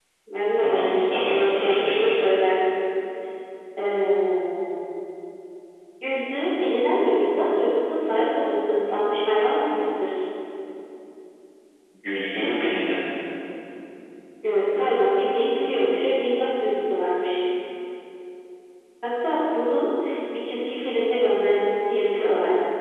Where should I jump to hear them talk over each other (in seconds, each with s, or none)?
0.6 s